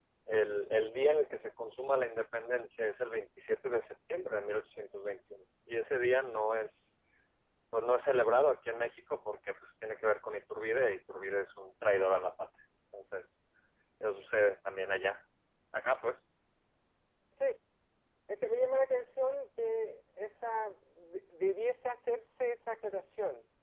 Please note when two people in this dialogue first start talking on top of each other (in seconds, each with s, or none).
none